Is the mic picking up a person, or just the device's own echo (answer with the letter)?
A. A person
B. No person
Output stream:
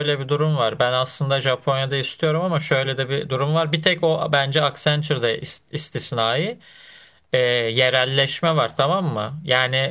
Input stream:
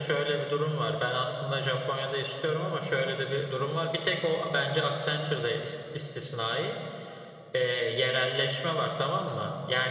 B